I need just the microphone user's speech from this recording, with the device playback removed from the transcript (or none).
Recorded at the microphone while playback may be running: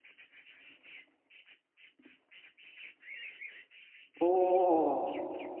おー。